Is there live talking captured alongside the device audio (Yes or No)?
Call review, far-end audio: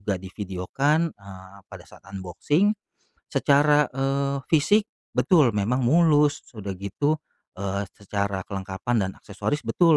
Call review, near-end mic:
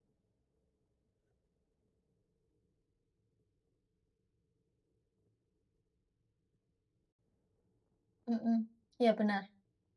Yes